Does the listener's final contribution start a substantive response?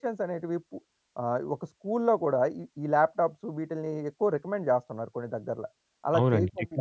Yes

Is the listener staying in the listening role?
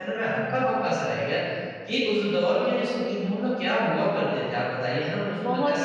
No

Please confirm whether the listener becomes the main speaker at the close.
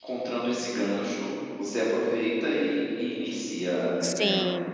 Yes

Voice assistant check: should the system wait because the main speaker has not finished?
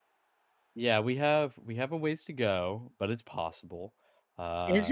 No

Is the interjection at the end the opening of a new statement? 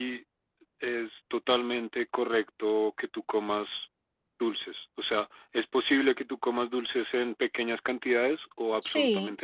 Yes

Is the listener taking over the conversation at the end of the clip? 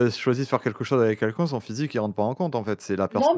Yes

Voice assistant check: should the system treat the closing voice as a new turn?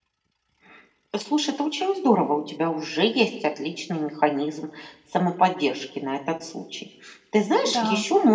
No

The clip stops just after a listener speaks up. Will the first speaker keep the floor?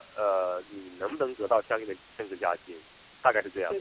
No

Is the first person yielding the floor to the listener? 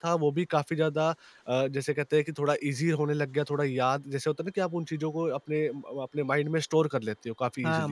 Yes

